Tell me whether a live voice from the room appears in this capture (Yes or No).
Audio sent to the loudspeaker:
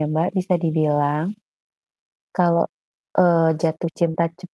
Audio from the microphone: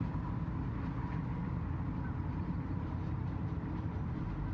No